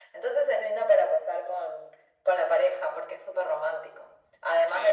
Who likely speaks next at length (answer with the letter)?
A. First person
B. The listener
B